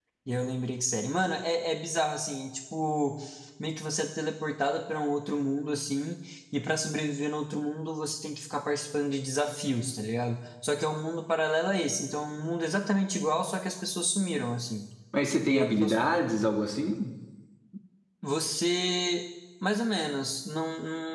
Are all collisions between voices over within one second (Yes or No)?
Yes